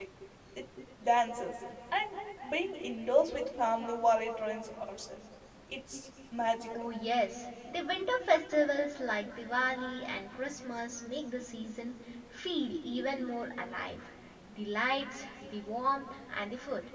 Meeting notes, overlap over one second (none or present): none